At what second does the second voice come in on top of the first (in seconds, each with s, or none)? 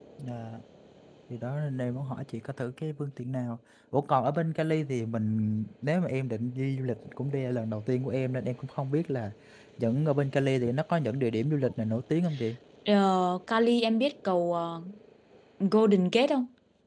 none